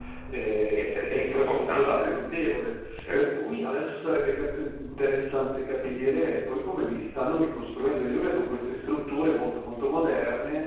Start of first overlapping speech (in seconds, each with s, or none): 0.8 s